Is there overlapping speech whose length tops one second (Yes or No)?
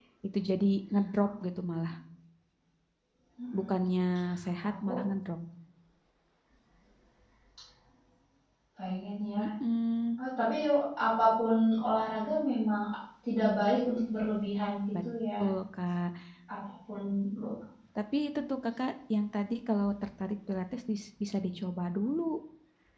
No